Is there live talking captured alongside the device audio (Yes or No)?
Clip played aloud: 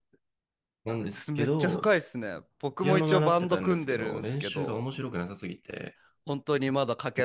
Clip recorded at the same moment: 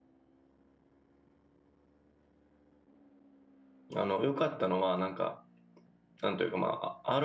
Yes